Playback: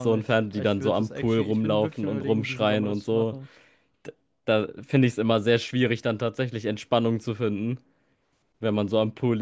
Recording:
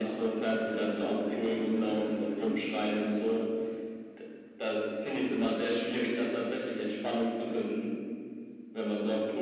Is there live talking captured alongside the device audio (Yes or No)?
No